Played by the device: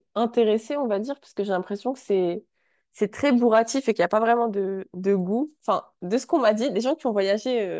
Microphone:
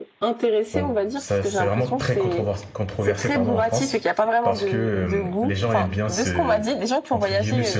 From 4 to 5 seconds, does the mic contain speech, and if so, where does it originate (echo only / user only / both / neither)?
both